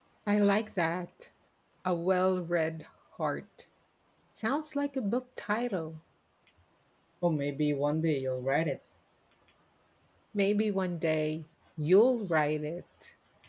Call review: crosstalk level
none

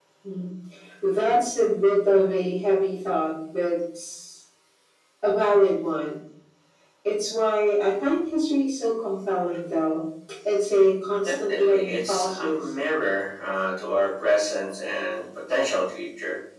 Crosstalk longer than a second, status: present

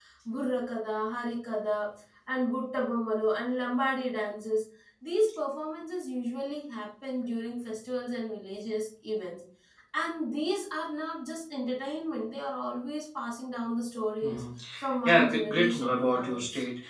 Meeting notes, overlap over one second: present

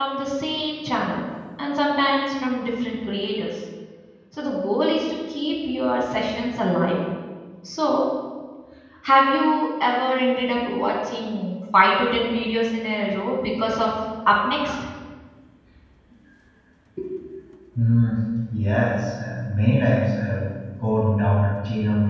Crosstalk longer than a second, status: none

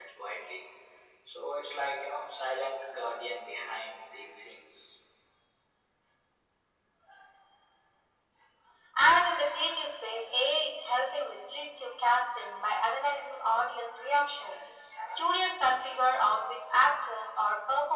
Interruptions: none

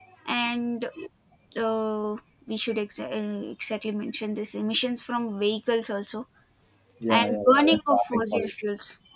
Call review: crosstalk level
present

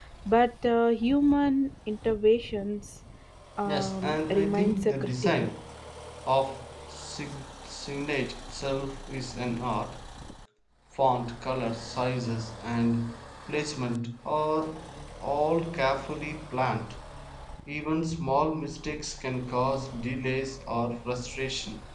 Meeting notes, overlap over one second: present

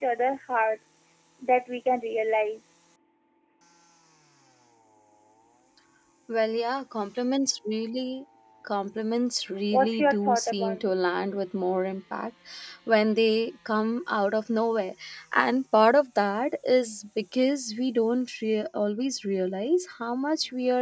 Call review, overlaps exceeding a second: present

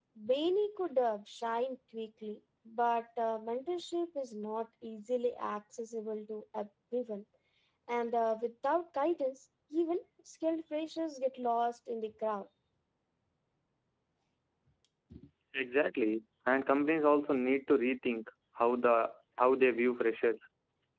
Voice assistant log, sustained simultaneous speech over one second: none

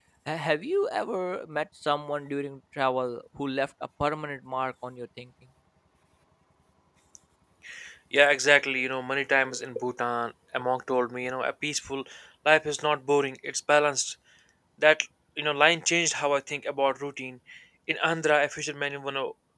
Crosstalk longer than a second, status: none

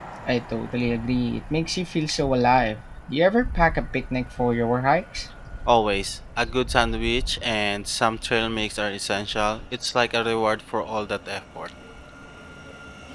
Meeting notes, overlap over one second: none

